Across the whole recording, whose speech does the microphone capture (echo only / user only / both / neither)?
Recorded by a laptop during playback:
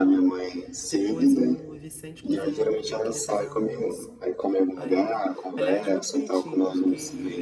both